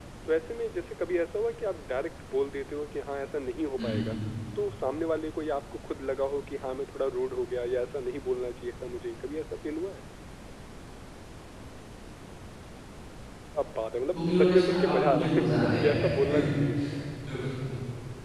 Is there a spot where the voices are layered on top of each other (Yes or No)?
Yes